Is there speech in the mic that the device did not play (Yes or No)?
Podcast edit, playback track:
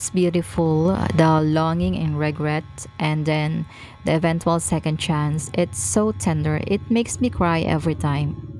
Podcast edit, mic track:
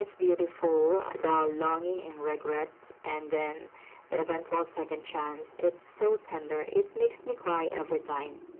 No